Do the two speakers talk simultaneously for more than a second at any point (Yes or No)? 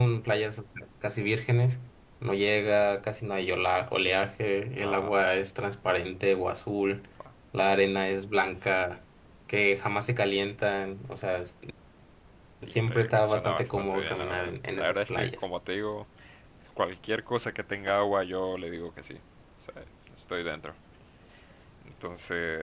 Yes